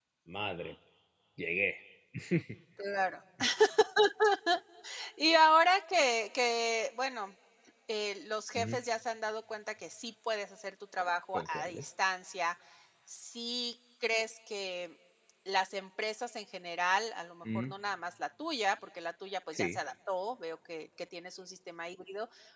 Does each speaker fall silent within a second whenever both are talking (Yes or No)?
Yes